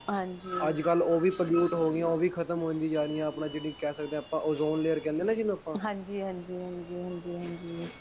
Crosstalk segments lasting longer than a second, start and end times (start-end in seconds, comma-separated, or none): none